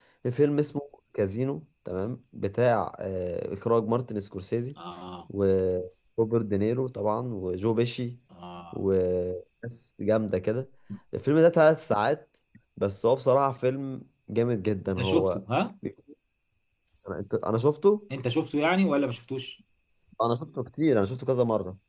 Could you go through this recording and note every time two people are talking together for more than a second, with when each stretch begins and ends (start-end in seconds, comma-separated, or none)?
none